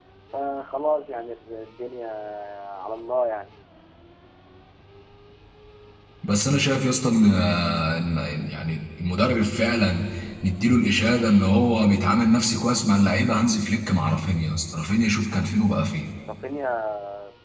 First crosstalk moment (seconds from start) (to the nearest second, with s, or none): none